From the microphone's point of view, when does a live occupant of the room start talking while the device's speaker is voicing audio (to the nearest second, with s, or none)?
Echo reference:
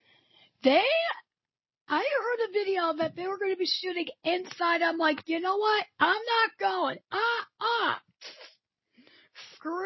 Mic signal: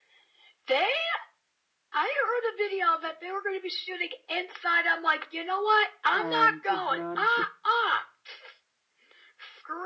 6 s